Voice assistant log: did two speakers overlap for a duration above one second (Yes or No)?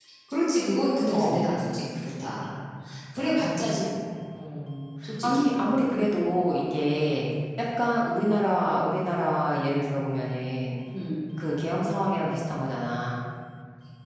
No